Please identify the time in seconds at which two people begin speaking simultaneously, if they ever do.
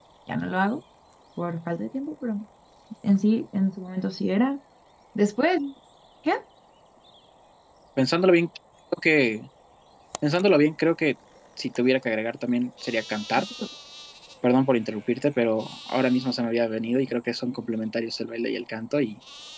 none

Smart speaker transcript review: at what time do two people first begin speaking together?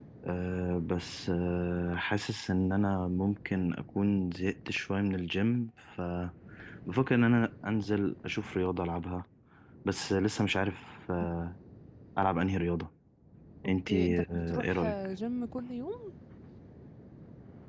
13.7 s

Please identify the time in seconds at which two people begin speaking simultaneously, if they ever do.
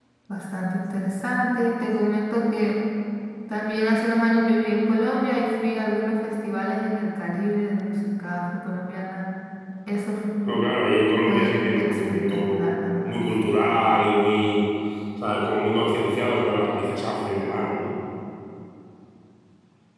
11.2 s

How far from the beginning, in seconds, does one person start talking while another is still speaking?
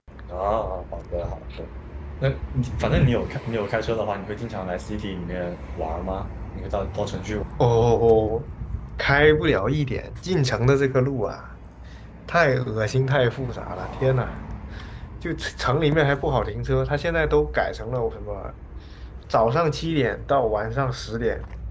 none

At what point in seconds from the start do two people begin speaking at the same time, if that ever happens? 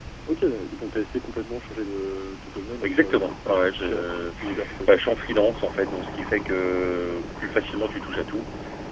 2.7 s

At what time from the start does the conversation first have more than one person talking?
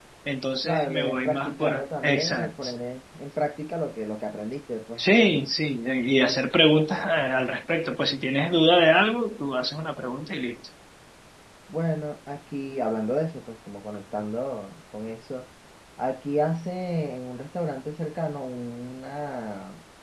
0.6 s

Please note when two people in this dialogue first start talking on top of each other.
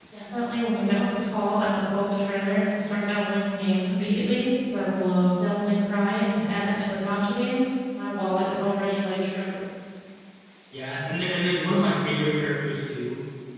none

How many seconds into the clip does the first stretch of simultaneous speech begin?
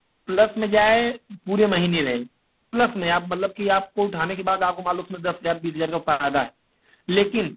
none

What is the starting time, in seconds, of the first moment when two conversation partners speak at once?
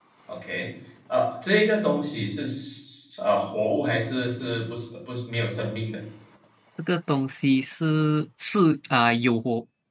none

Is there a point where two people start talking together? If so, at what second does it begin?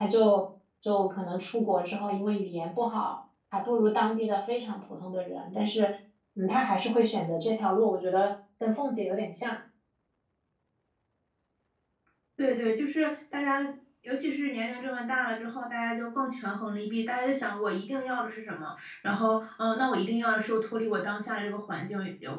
none

